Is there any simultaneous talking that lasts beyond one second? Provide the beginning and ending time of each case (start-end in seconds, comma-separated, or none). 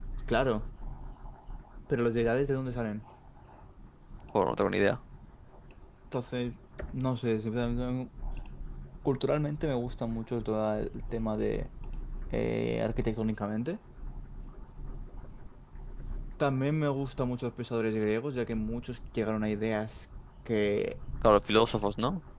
none